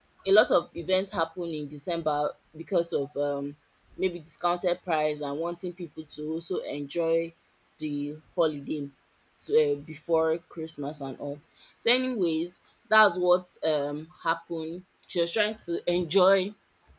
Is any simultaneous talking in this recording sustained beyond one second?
No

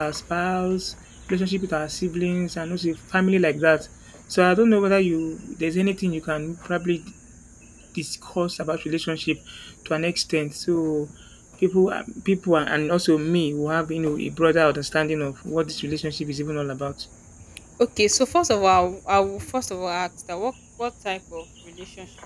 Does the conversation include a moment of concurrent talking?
No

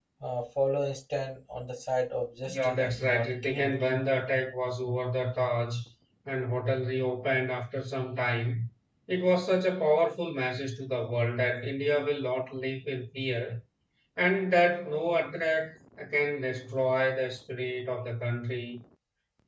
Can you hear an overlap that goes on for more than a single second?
Yes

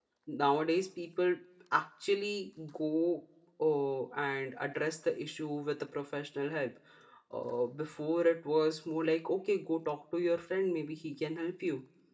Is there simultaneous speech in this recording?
No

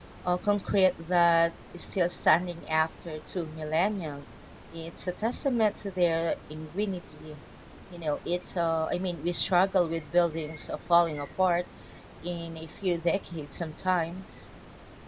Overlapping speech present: No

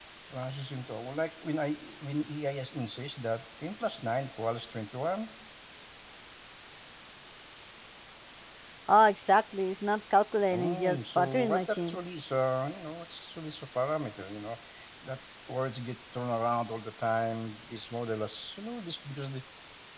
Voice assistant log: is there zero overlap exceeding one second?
No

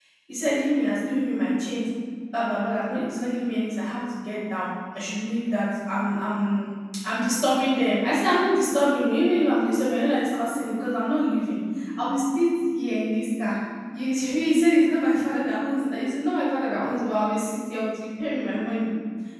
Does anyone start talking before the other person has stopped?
No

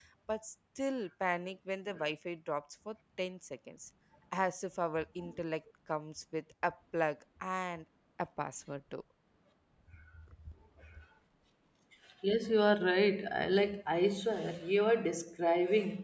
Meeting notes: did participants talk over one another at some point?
No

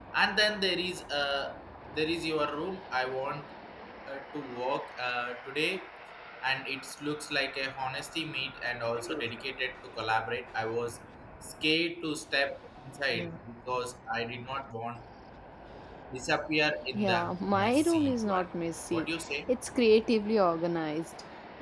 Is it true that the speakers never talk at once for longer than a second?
No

